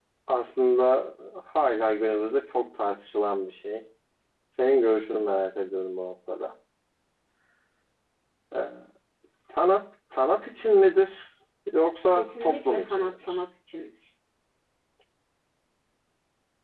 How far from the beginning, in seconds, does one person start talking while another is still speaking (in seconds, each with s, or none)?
12.2 s